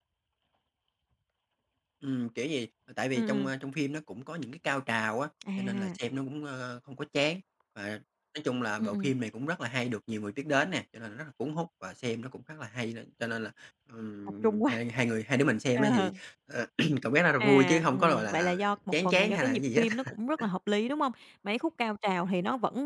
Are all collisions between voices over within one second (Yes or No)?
No